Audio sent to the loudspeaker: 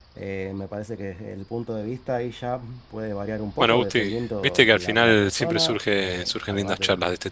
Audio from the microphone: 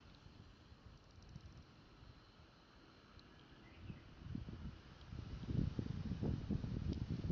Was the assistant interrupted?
No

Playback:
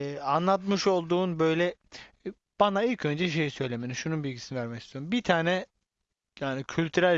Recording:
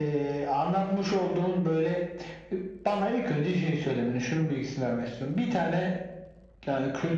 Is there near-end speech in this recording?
No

